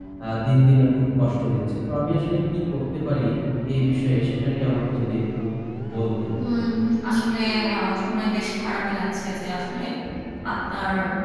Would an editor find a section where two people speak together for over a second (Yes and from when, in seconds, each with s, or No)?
No